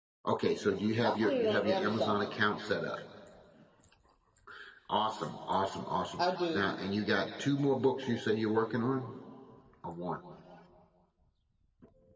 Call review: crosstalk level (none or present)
present